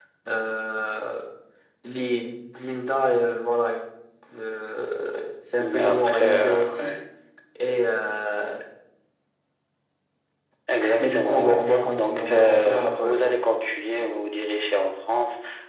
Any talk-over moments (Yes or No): Yes